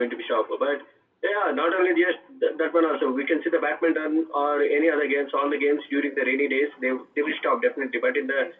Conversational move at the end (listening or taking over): listening